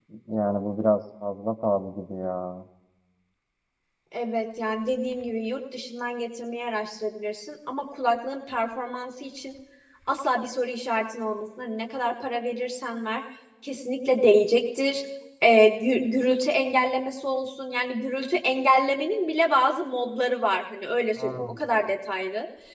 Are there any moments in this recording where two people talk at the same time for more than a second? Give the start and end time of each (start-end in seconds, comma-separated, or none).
none